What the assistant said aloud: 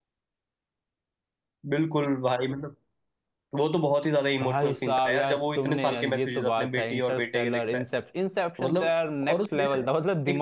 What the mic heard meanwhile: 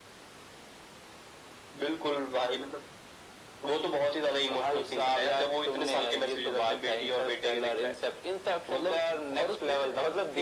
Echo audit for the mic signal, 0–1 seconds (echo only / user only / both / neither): neither